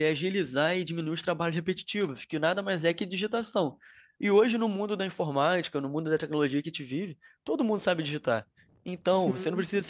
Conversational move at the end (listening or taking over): listening